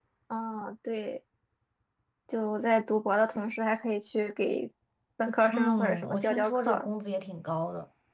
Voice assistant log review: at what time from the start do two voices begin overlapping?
5.5 s

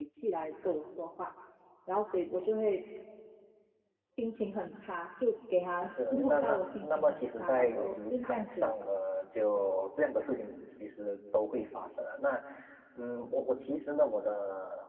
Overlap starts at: 5.8 s

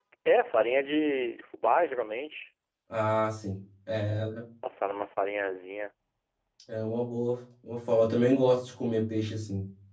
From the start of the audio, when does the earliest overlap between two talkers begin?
none

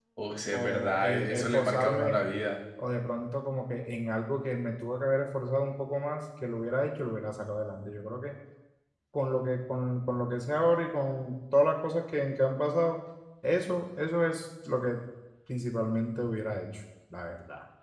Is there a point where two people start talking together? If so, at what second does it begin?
0.5 s

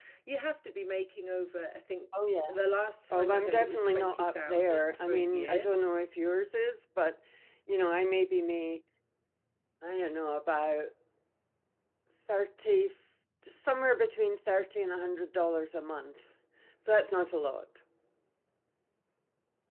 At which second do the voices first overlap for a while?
3.1 s

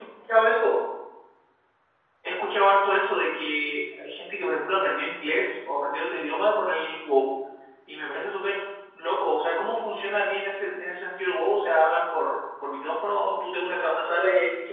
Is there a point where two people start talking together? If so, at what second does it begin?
none

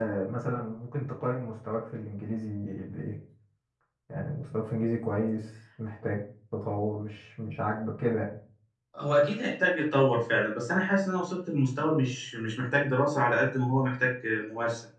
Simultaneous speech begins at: none

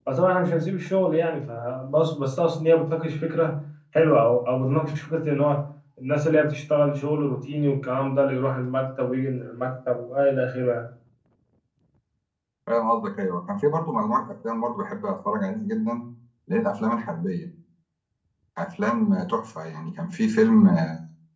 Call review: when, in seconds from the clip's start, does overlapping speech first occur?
none

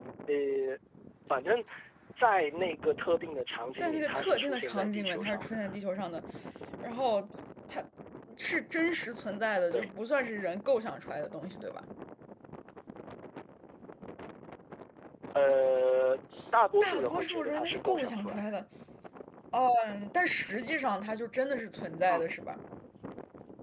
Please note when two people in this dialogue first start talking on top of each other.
3.8 s

